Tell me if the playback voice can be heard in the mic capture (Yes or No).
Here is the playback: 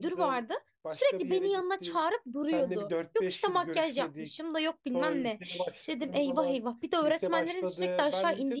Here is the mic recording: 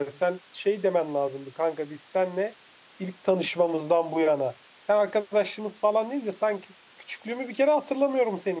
No